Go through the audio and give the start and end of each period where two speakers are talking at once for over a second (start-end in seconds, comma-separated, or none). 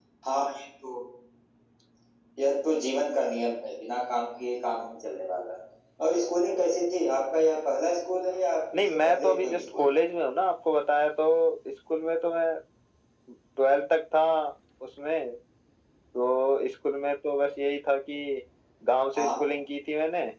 8.7-10.0